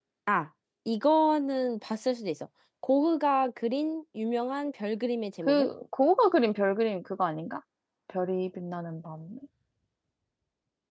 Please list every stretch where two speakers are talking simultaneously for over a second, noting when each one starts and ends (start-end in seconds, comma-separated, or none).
none